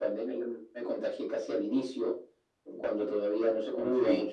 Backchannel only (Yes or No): Yes